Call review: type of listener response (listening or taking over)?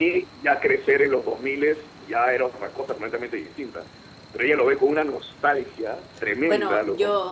taking over